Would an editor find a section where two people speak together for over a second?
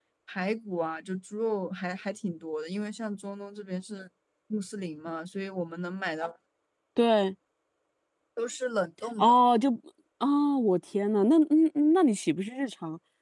No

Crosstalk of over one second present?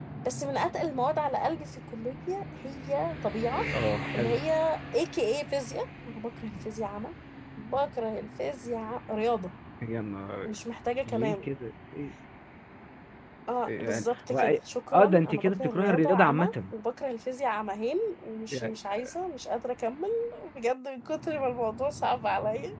Yes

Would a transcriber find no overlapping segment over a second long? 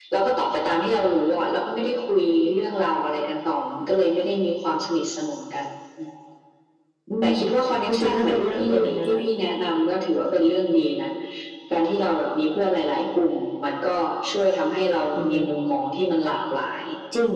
No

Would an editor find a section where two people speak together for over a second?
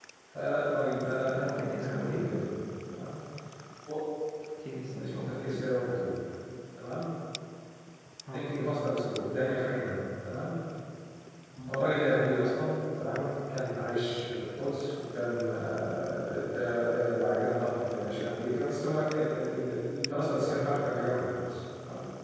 Yes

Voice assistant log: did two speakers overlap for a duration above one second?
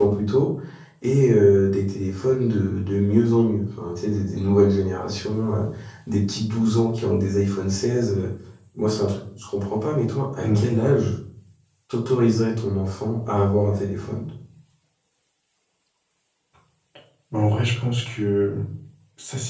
No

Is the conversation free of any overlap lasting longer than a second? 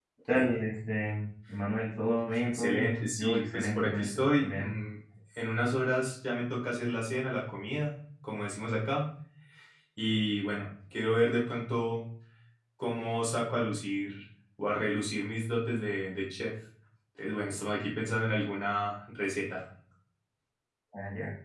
No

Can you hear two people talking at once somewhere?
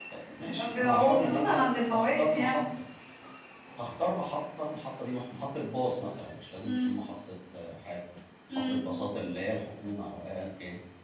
Yes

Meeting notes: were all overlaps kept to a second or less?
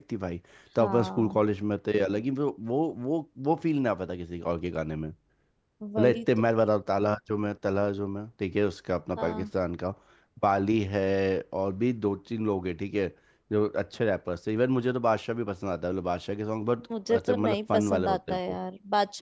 No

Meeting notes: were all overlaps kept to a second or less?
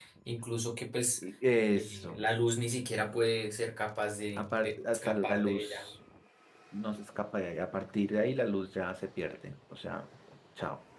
No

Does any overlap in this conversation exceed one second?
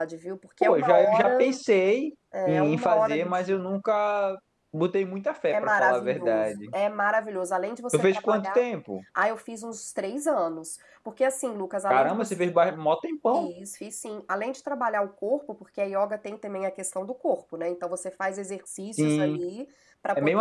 Yes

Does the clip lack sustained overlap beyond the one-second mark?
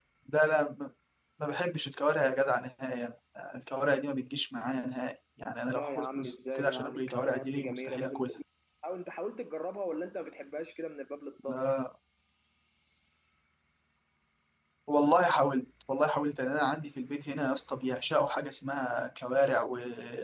No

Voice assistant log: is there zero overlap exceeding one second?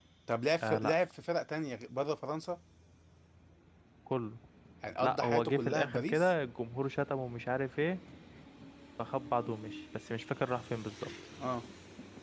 No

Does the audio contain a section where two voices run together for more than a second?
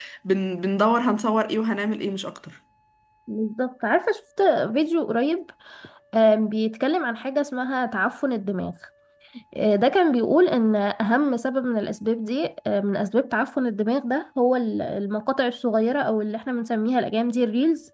No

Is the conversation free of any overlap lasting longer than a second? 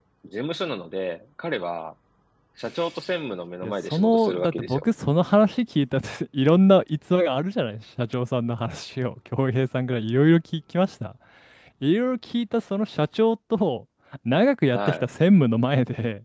No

